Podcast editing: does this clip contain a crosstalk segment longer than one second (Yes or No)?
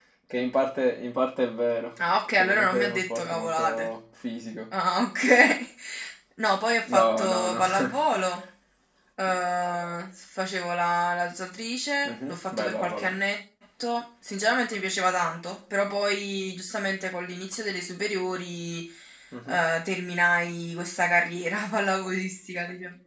Yes